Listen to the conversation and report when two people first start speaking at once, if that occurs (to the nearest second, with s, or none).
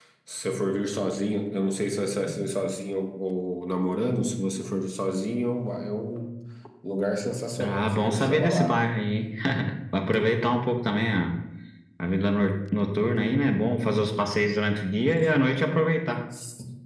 8 s